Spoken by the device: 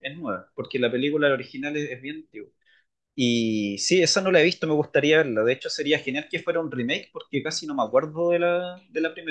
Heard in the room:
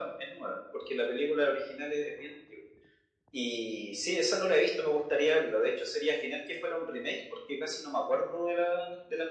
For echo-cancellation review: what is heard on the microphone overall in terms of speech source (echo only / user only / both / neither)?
echo only